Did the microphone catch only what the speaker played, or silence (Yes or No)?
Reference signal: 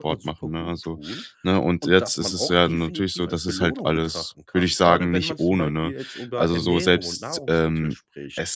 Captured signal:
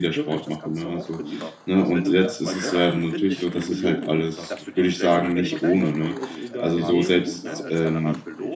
No